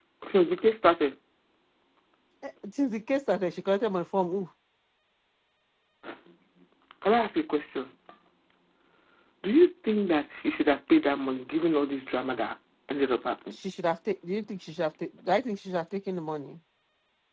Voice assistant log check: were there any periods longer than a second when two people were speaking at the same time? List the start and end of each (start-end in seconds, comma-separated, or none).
none